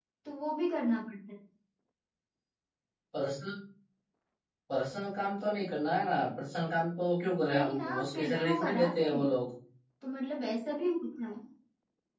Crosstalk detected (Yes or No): Yes